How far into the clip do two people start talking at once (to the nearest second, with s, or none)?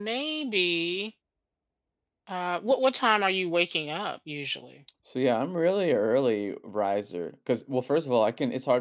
none